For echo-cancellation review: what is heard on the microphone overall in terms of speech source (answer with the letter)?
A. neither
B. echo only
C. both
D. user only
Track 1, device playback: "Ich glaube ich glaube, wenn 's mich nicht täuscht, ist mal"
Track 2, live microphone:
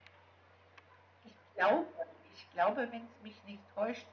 B